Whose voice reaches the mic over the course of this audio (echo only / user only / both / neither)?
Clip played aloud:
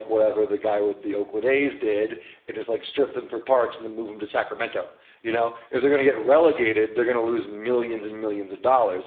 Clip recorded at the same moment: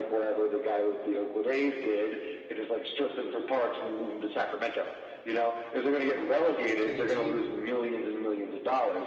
both